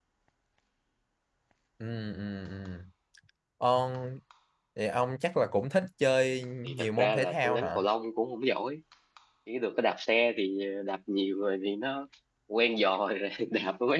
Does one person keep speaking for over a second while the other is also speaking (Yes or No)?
Yes